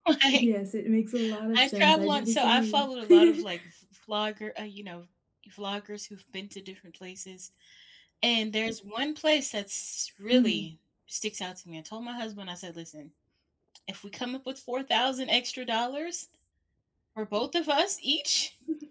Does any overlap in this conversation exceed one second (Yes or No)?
Yes